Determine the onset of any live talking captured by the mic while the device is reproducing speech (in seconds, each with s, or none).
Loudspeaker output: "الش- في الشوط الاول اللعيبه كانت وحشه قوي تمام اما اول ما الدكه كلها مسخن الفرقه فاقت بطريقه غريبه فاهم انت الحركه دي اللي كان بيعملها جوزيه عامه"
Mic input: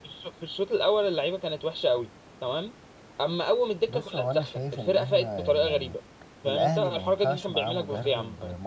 3.9 s